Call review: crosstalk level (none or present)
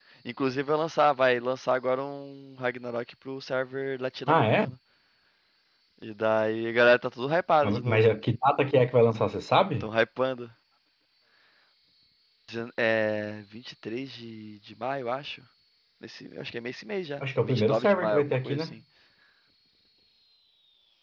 present